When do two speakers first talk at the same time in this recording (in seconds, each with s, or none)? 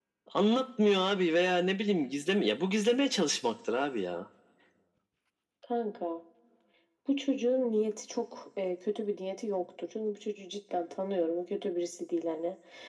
none